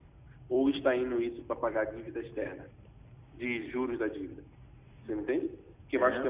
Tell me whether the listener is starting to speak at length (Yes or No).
No